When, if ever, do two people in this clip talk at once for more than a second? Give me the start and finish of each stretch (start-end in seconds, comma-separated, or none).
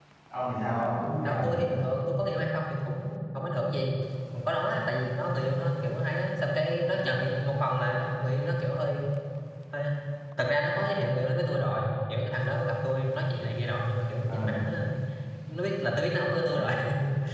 none